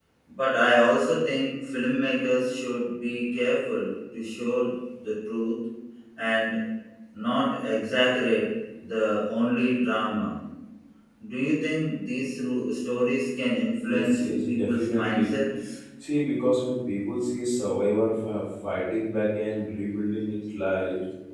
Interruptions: present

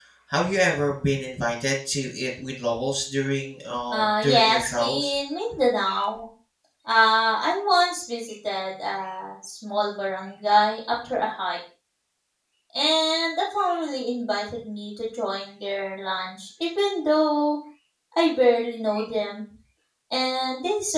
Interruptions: present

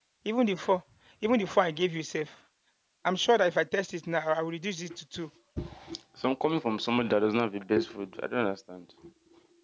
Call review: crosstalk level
none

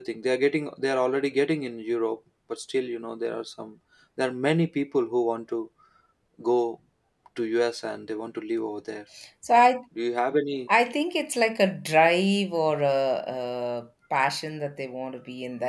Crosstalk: none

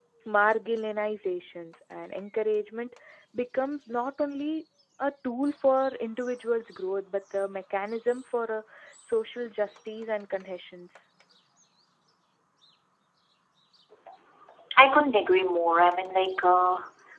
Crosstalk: none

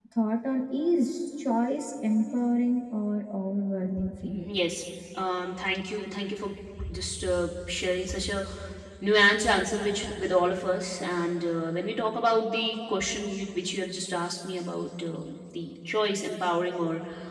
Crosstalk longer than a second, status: none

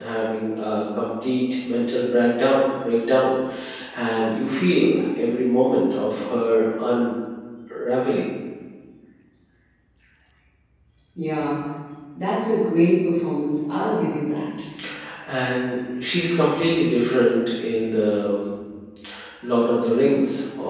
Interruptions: none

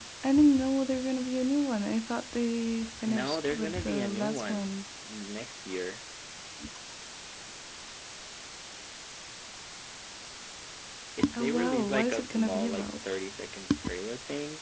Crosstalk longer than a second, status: present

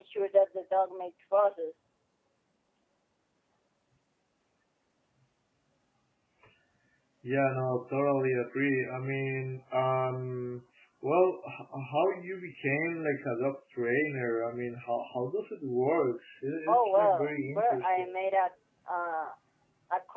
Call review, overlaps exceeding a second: present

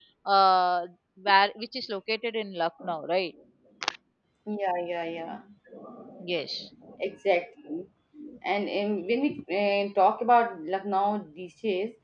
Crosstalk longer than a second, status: none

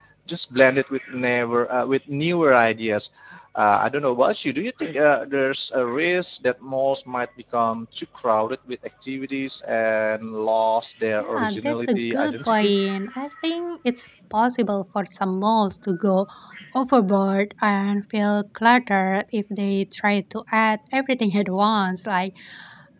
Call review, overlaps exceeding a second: present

